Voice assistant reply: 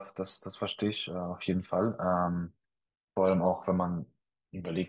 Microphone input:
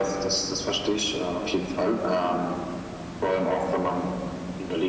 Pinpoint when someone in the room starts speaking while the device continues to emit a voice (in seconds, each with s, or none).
none